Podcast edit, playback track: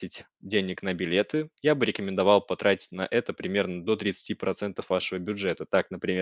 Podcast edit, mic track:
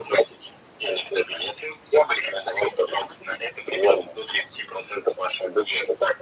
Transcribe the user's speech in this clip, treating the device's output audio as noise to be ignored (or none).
none